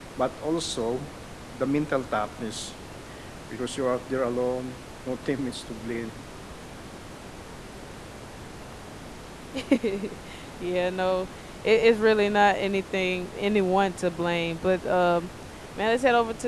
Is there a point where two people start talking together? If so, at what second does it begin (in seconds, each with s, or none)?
none